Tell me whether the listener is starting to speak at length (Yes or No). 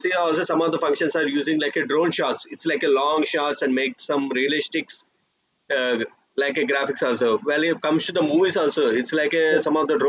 No